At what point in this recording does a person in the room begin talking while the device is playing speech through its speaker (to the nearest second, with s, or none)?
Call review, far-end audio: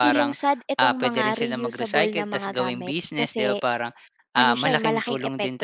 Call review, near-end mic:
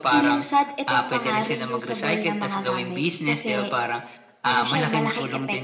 none